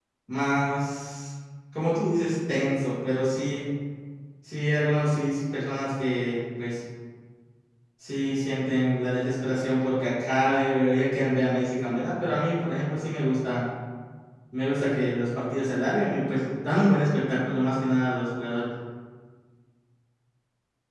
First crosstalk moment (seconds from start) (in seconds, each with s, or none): none